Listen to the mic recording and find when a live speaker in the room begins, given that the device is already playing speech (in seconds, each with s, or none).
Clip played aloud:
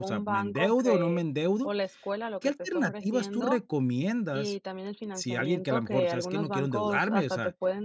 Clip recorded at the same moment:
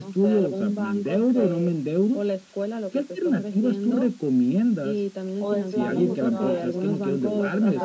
5.4 s